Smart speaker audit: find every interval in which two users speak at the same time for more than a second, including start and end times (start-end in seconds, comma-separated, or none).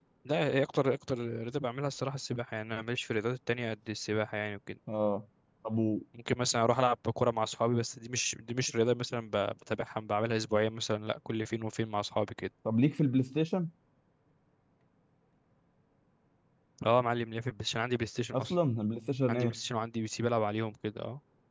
none